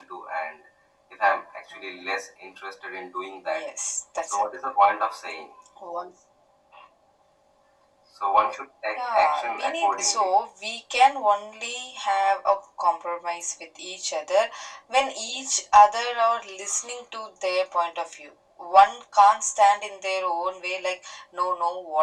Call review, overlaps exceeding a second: present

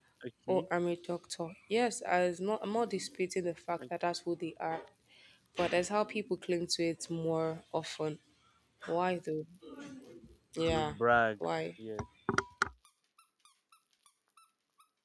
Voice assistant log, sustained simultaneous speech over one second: none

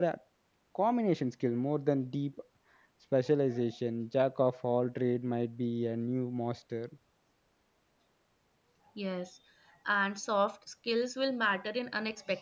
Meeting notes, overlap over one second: none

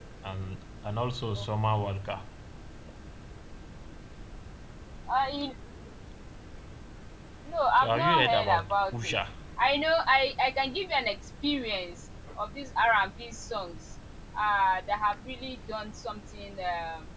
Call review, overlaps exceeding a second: present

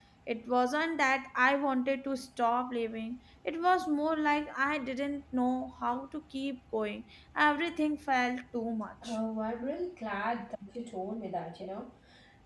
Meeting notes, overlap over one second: none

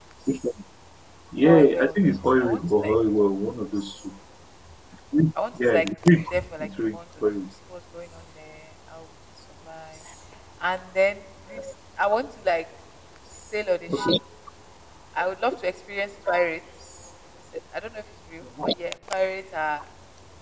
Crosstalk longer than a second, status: present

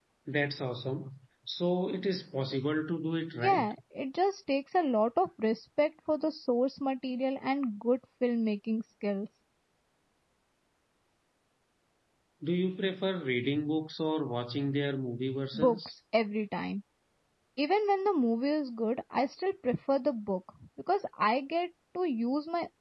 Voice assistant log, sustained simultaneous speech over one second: none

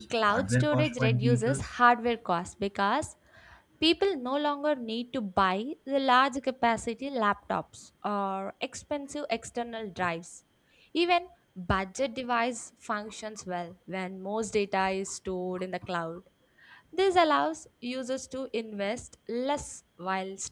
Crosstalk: present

